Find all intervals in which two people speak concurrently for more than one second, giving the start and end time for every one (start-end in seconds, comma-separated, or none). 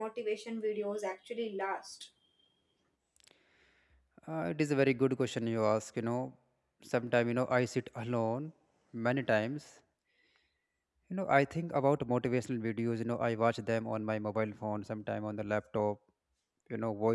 none